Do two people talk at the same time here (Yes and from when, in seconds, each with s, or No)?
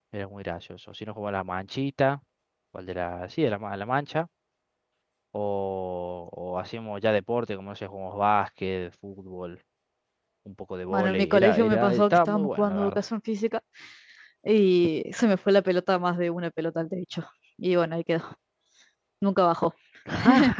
Yes, from 10.9 s